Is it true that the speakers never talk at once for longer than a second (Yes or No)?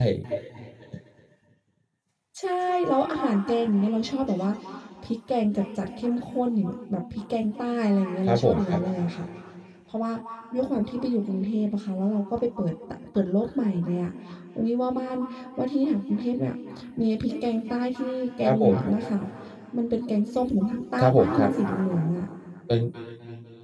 Yes